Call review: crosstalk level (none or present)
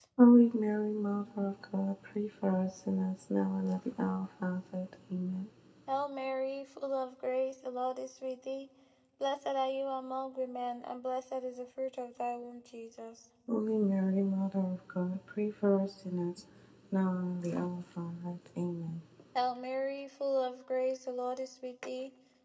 none